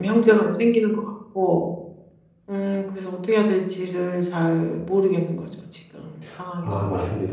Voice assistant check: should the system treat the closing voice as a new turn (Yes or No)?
Yes